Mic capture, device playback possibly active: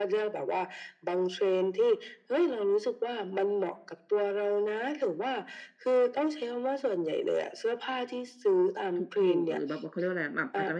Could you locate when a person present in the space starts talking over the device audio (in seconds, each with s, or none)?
8.9 s